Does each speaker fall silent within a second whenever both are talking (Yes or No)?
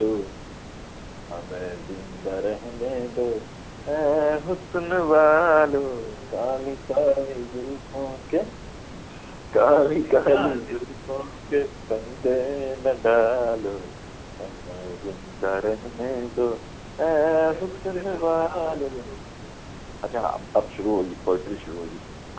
No